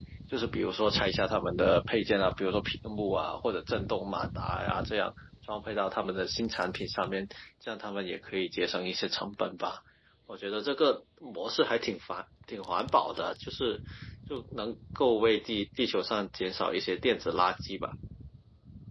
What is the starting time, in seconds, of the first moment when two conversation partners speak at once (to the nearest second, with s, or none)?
none